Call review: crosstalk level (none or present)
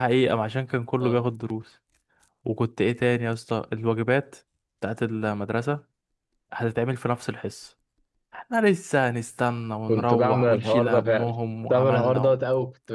present